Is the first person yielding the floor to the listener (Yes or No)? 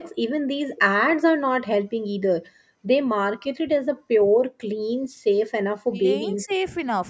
Yes